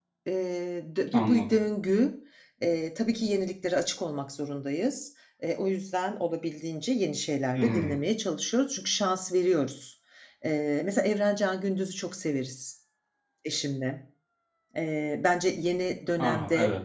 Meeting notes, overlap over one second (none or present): none